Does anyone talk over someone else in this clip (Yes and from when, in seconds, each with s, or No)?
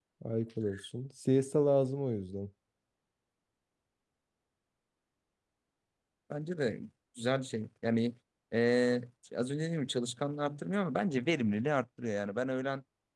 No